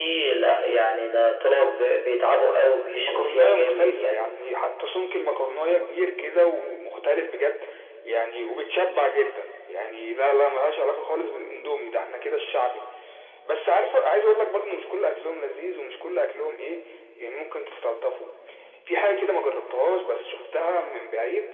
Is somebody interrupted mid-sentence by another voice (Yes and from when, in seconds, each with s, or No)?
Yes, from 2.9 s